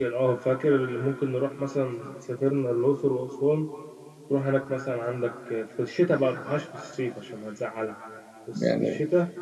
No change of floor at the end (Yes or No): Yes